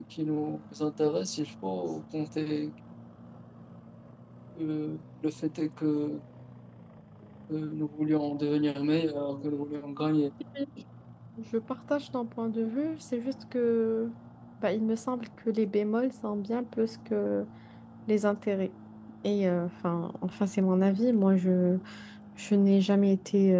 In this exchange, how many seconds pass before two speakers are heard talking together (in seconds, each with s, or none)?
none